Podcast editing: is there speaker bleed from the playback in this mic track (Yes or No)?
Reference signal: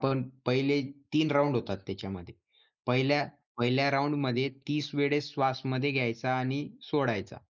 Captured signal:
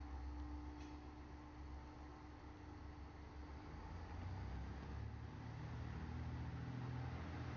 No